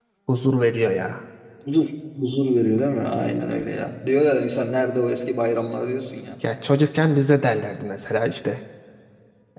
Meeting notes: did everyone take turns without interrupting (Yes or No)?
Yes